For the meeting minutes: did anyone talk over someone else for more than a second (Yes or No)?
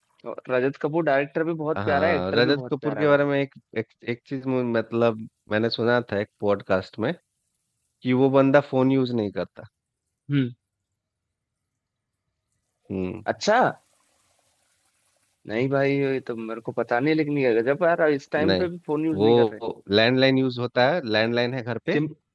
Yes